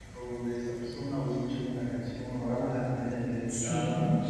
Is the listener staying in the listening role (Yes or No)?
No